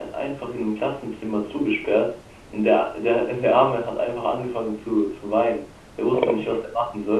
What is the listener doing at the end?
listening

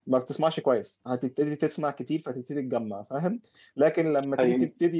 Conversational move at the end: listening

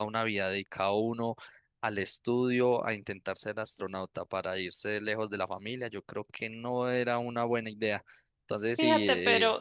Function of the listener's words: taking over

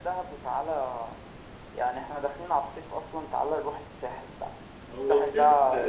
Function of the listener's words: taking over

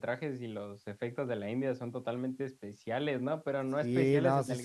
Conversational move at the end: taking over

